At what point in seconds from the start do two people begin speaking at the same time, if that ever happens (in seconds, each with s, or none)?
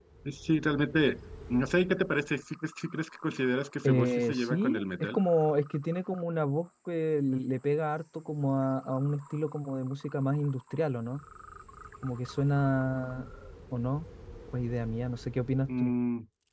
3.8 s